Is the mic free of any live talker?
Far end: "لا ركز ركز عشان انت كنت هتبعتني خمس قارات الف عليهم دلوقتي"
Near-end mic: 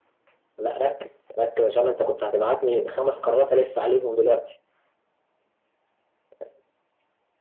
Yes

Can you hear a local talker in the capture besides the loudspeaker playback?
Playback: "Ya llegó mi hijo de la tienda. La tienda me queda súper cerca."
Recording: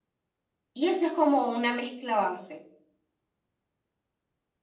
Yes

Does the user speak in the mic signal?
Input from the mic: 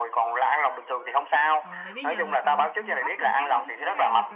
Yes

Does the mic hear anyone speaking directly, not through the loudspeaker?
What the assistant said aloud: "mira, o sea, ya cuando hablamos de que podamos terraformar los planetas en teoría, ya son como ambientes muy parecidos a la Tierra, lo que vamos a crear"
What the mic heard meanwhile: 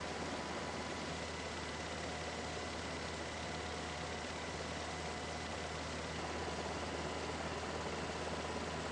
No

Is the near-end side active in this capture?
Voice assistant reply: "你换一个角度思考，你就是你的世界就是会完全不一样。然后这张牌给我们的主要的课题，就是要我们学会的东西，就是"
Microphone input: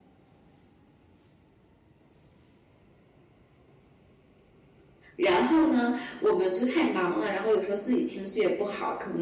Yes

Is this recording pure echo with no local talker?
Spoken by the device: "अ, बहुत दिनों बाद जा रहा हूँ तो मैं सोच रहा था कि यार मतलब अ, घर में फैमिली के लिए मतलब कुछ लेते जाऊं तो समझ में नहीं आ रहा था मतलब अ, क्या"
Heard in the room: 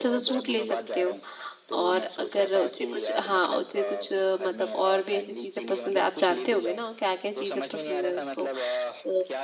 No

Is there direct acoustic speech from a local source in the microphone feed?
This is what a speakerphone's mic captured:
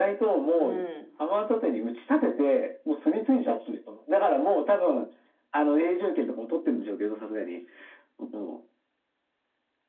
Yes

